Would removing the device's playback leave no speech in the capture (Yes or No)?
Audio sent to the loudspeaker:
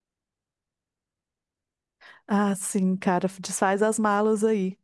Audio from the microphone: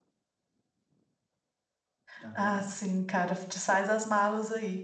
No